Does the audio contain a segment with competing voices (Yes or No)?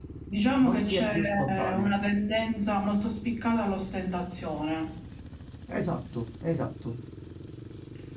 Yes